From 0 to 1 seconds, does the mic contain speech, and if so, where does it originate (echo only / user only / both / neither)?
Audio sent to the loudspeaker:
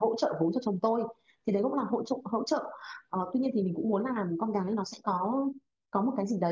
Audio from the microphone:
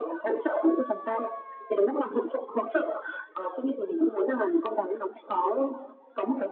echo only